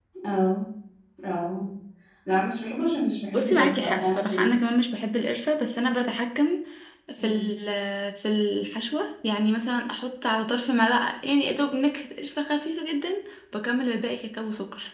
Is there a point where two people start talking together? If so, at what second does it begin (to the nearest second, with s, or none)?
3 s